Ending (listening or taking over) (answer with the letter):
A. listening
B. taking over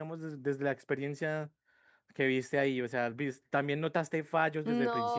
B